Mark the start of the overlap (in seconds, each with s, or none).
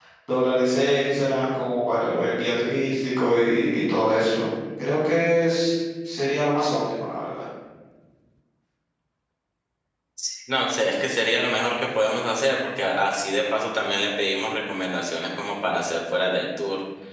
none